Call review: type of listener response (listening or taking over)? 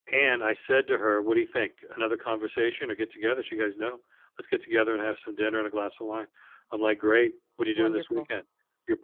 listening